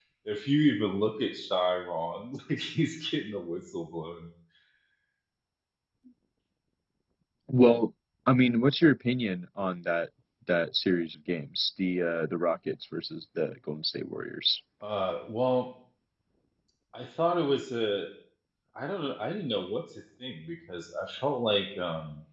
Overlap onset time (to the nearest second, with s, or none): none